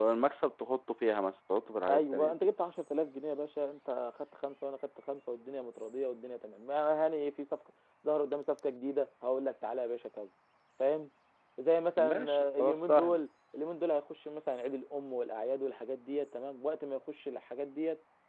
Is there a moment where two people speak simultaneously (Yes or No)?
Yes